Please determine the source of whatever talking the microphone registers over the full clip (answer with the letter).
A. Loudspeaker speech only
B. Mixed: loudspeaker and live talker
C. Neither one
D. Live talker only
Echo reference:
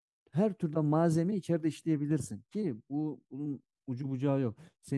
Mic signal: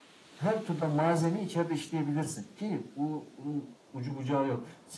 A